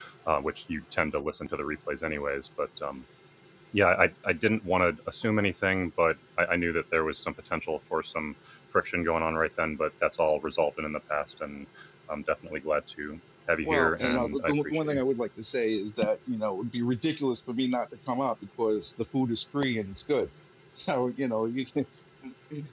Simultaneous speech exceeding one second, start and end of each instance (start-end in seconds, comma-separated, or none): 13.6-15.0